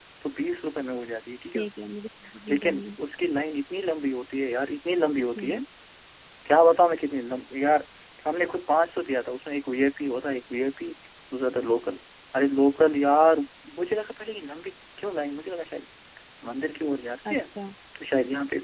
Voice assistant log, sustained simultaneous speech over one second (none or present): none